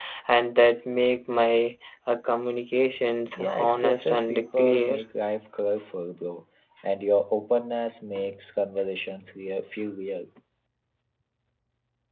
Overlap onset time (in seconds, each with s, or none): 3.4 s